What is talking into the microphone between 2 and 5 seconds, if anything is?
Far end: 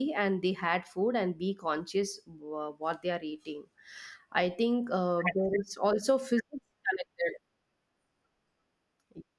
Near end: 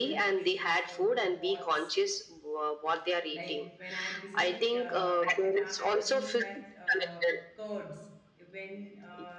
both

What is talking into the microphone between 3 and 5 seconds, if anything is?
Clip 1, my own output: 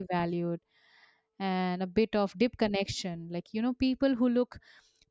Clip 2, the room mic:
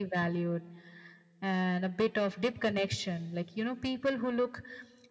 echo only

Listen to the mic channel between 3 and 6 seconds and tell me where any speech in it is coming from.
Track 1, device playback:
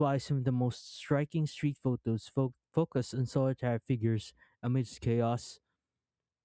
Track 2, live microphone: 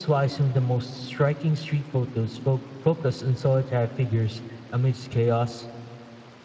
echo only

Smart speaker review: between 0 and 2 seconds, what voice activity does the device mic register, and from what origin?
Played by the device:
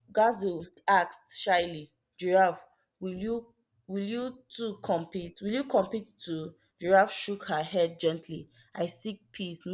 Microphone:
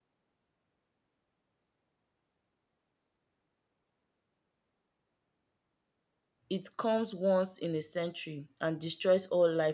neither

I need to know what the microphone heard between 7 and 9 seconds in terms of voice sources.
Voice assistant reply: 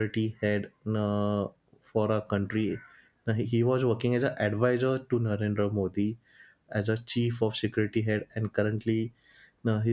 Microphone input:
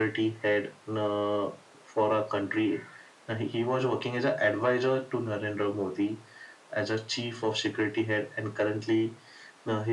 echo only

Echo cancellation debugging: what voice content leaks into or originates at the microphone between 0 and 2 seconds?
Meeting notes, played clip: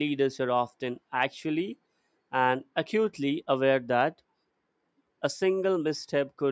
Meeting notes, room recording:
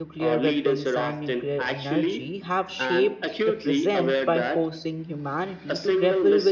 both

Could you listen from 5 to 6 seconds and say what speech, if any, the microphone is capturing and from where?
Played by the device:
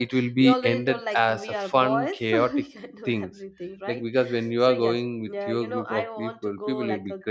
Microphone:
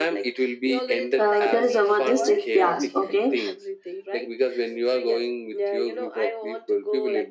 echo only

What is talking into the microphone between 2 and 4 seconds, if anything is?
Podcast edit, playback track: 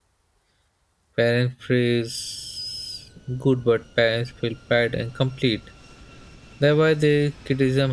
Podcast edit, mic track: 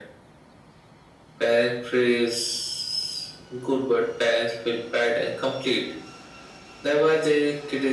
echo only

